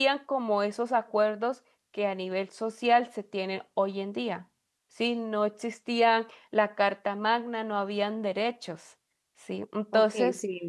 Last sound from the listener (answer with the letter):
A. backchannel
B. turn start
B